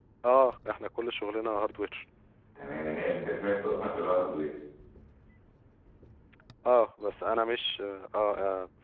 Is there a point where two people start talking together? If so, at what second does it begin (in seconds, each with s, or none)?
none